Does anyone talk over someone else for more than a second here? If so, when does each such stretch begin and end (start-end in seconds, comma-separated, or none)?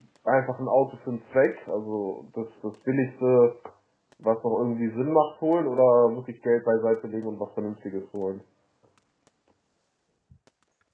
none